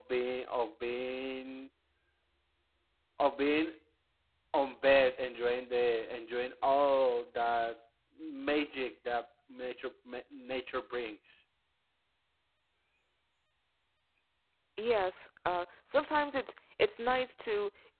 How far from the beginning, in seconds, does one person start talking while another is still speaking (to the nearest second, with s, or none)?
none